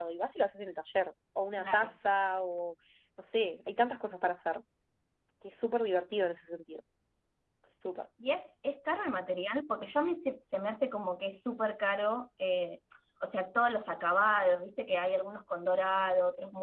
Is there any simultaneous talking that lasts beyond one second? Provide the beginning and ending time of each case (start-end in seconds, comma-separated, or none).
none